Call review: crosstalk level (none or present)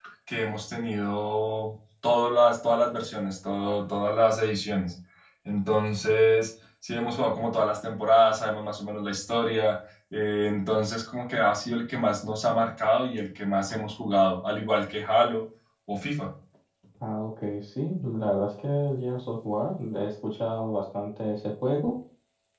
none